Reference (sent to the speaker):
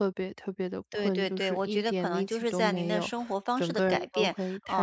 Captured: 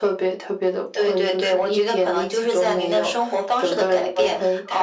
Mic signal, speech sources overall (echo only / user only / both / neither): echo only